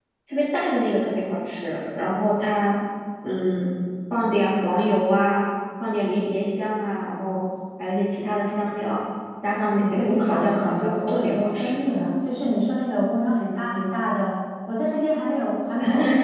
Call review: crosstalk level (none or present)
present